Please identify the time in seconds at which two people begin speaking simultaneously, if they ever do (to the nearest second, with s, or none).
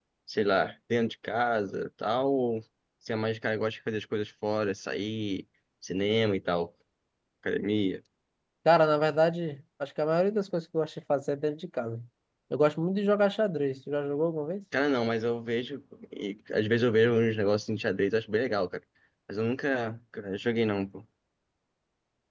none